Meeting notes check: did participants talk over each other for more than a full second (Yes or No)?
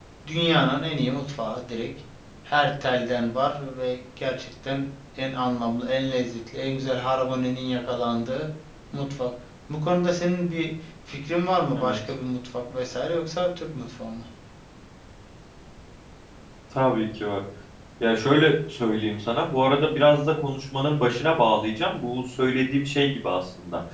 No